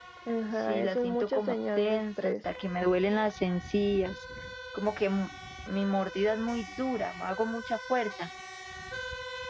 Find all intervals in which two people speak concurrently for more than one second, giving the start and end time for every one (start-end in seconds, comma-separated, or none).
0.6-2.4